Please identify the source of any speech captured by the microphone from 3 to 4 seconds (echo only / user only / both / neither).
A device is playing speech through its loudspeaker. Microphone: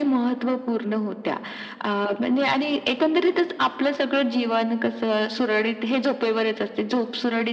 echo only